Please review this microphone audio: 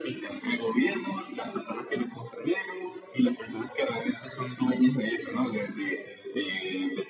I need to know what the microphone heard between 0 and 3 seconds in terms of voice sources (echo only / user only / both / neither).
echo only